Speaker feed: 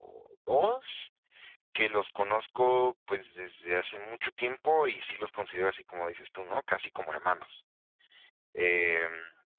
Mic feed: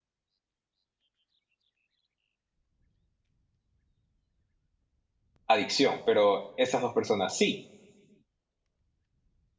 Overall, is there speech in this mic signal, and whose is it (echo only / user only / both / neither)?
user only